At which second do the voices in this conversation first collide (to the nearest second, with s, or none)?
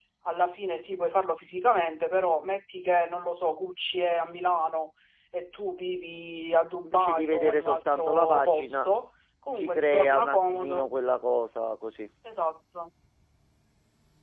7 s